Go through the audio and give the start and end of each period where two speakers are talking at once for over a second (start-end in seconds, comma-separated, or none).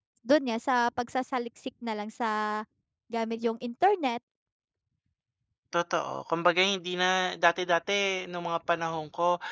none